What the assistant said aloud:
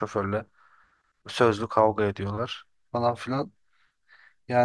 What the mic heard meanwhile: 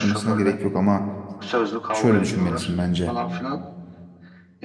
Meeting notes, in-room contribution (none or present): present